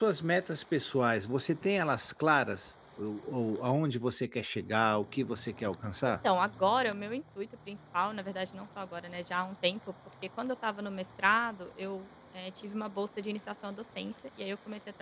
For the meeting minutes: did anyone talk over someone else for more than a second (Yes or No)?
No